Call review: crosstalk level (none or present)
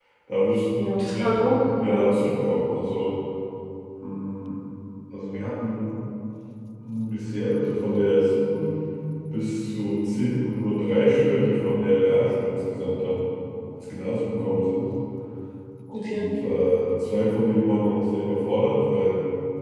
present